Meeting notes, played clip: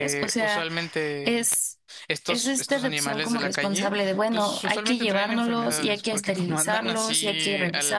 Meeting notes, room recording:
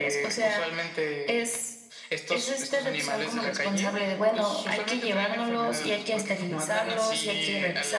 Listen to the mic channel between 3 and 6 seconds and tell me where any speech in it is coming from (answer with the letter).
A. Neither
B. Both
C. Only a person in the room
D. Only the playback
D